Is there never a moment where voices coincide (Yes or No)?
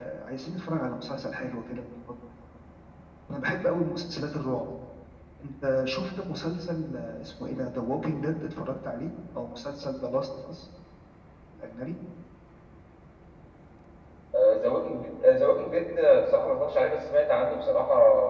Yes